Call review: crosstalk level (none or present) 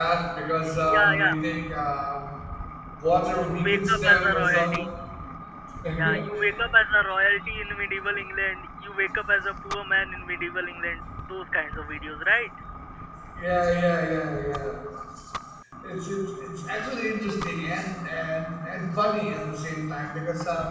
present